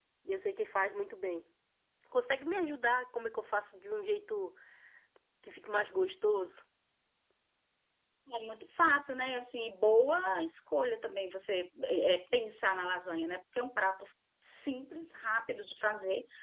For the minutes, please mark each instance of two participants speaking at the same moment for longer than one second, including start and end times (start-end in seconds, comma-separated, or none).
none